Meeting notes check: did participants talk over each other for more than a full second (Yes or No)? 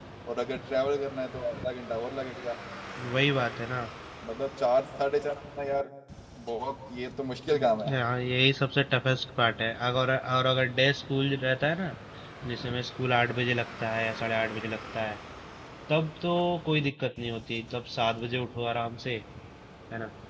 No